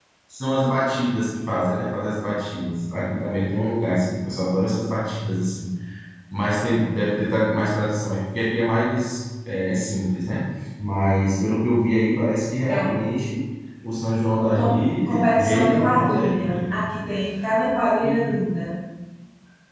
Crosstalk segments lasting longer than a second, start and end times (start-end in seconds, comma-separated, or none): 14.4-16.8